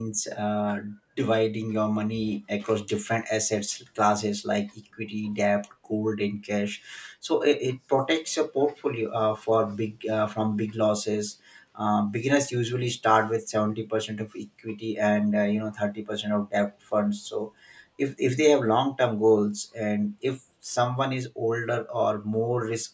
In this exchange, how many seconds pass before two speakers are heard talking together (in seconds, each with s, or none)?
none